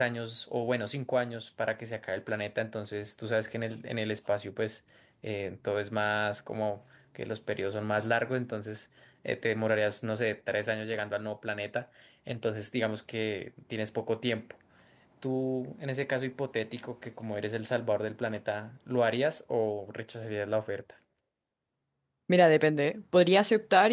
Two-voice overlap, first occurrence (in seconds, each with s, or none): none